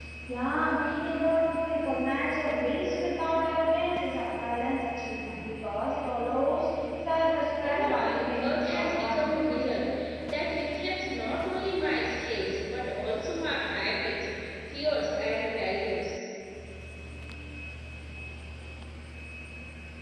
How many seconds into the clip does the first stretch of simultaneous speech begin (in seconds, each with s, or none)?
7.6 s